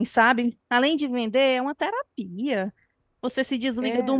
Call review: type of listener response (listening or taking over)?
listening